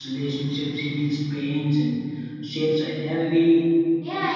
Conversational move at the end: taking over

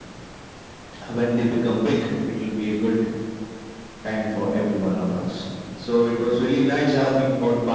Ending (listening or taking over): listening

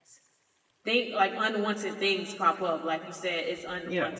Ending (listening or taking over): listening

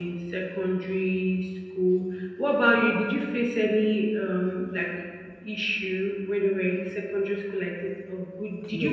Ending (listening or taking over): taking over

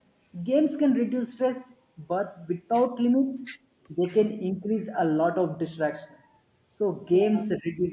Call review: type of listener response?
listening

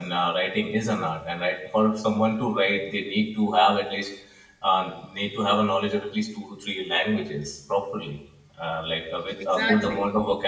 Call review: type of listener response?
listening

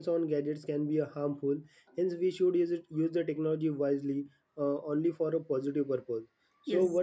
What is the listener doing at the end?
listening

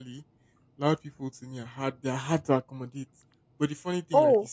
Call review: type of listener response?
taking over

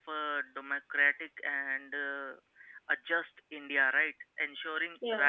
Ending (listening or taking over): listening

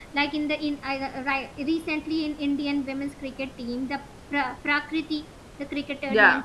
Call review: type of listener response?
listening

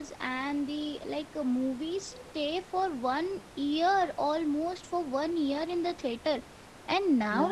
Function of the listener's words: listening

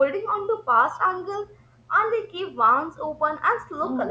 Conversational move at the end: taking over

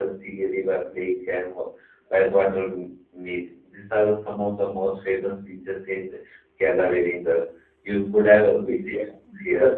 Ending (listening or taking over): taking over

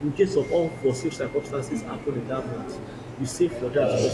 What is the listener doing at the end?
listening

